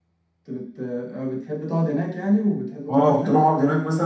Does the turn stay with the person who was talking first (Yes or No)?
No